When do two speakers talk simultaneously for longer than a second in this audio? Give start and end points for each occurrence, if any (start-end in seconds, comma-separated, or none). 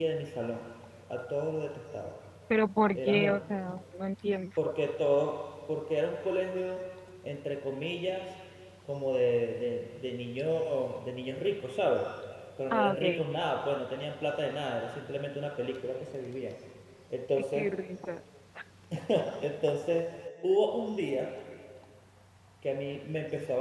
none